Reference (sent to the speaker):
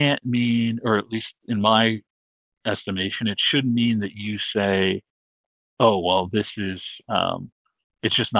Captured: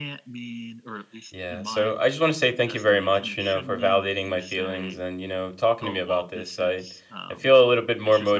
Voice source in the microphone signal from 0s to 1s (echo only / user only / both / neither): echo only